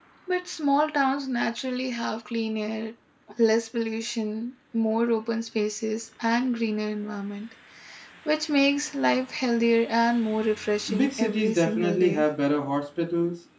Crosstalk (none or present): present